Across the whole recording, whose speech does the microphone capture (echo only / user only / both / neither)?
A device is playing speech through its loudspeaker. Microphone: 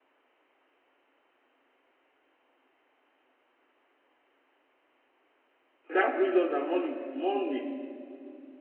user only